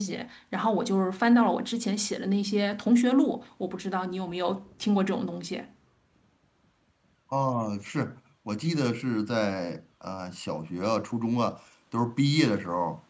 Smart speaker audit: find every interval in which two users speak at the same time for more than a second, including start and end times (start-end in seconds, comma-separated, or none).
none